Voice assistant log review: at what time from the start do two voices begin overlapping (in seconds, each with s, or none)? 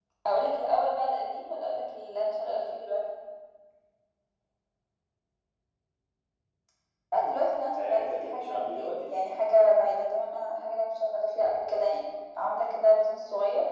7.8 s